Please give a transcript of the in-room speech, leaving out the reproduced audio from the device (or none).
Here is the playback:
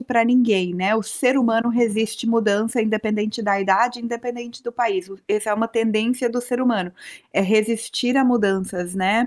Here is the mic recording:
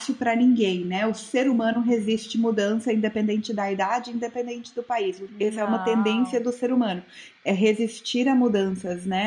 Não.